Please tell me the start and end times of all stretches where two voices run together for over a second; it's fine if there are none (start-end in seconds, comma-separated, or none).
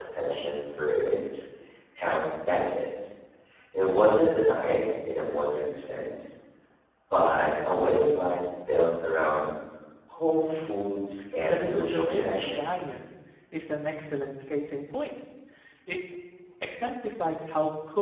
11.4-12.6